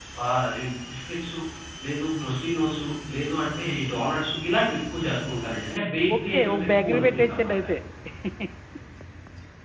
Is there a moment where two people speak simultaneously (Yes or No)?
Yes